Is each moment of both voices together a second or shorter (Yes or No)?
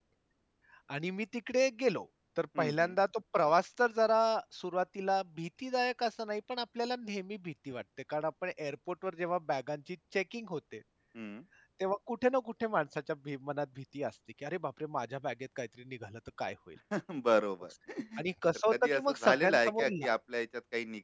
No